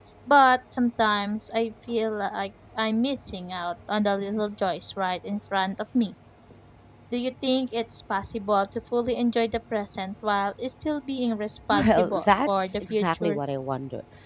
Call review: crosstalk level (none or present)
present